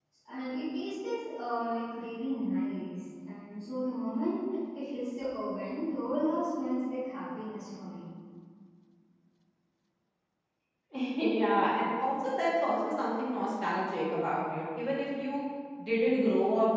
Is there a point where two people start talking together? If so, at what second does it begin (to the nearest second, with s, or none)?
none